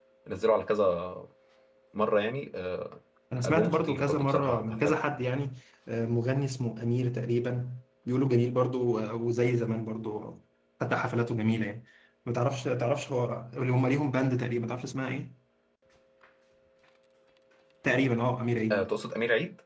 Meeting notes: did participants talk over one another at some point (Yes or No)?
Yes